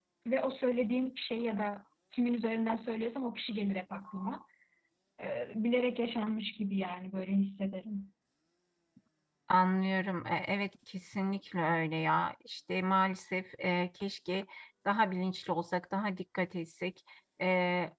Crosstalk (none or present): none